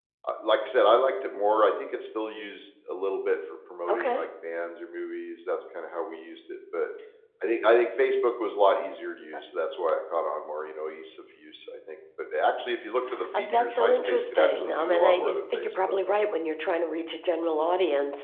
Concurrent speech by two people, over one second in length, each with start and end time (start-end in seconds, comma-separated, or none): 13.4-15.9